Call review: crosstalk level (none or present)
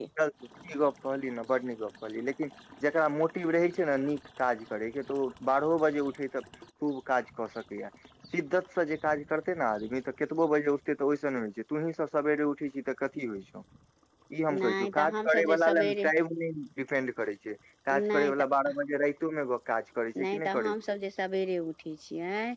present